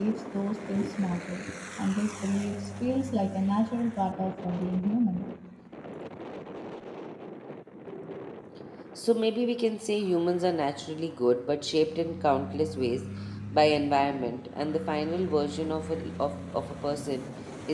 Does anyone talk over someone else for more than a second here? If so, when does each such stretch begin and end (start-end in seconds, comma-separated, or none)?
none